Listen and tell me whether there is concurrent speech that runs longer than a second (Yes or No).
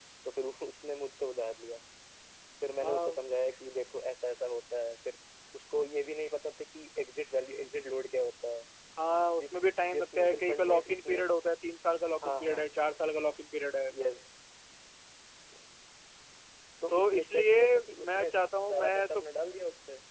Yes